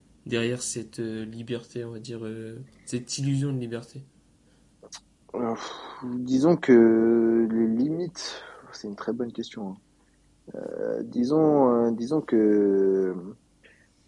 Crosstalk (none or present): none